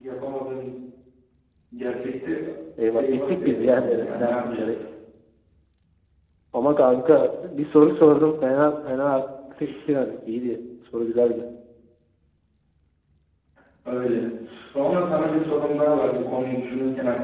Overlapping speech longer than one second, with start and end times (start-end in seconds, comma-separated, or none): 2.9-4.8